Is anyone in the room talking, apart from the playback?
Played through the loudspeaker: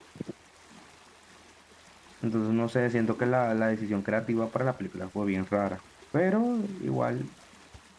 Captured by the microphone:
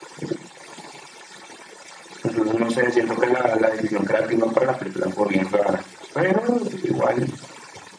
No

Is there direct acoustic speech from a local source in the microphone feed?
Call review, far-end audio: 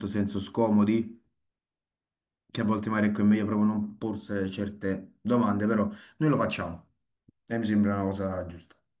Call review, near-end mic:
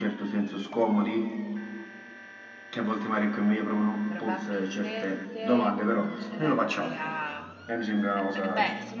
Yes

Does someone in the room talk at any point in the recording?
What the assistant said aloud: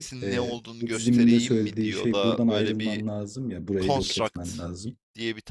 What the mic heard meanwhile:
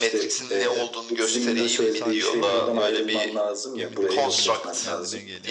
Yes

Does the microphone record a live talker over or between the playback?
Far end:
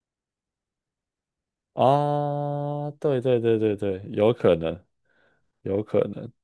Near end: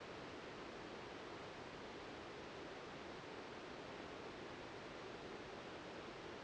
No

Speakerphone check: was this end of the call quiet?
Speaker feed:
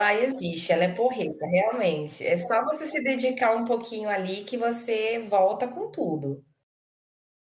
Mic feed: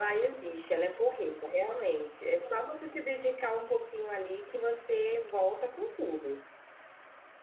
Yes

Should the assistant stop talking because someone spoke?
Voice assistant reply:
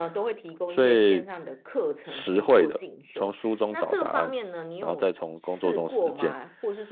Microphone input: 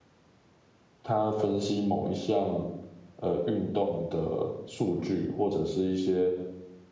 Yes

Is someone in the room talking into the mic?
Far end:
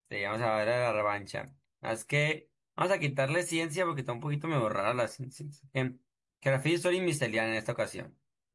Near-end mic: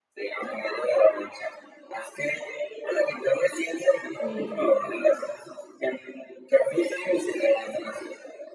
Yes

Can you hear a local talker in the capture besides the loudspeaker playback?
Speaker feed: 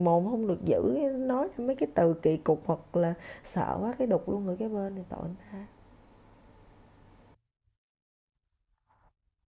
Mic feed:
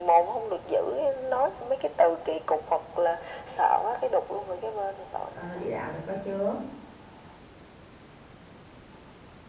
Yes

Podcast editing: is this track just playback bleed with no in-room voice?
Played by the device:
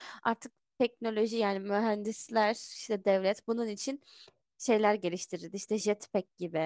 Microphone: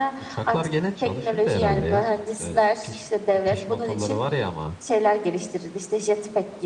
No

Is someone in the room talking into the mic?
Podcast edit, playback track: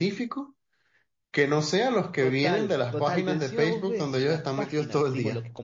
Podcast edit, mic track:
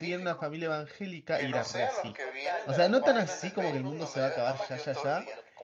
Yes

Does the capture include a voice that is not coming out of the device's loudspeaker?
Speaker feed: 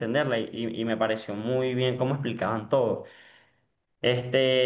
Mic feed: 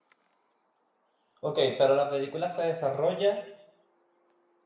Yes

